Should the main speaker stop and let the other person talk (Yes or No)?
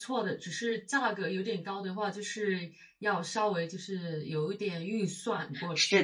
Yes